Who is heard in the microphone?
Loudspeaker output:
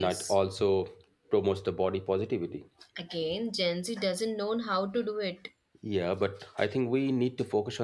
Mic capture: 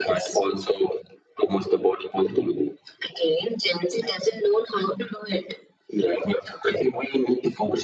echo only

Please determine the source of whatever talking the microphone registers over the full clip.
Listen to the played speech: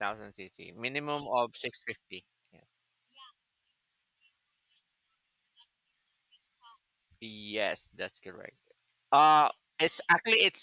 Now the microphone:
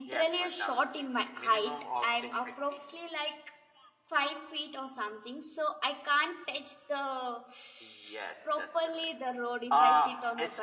both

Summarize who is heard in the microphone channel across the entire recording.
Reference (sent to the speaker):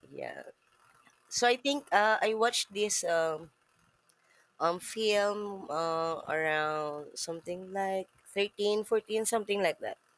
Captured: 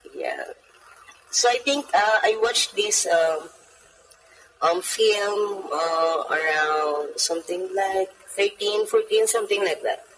echo only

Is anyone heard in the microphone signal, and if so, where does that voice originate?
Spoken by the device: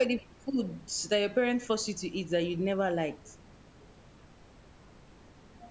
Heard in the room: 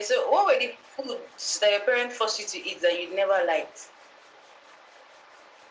echo only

